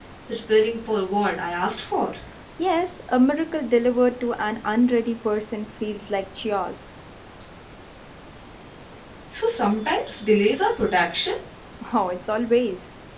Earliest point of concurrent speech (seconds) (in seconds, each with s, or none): none